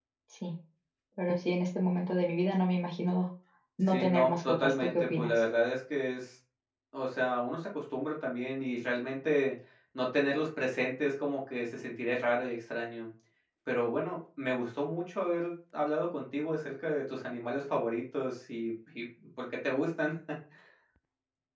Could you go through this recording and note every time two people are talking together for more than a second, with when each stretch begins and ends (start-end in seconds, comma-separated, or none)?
3.9-5.4